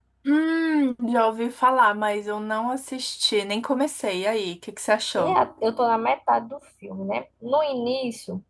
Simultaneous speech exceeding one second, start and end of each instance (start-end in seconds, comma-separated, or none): none